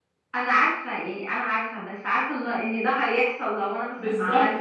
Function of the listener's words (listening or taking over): taking over